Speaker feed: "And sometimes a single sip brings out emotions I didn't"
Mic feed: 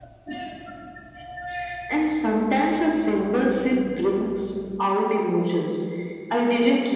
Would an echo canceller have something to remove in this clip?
Yes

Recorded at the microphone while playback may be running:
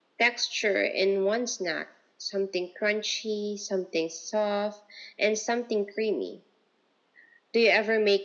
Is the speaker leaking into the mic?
Yes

